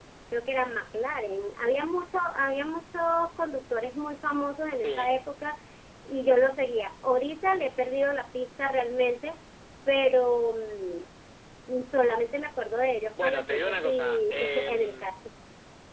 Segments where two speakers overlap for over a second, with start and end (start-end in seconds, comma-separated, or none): 13.2-15.1